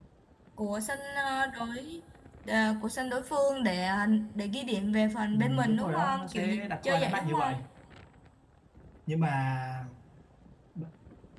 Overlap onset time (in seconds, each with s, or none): 5.3 s